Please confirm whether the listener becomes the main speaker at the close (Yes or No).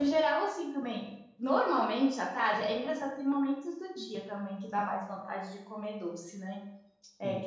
No